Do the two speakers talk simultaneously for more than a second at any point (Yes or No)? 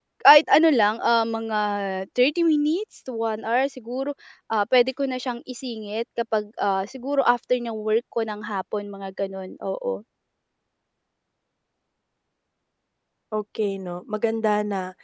No